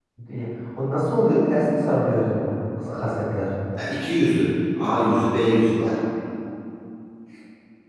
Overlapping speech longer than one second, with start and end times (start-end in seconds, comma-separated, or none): none